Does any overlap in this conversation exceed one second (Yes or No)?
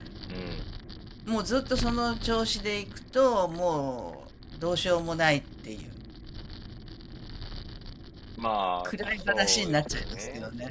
Yes